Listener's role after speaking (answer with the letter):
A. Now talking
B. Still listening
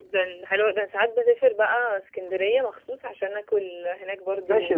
A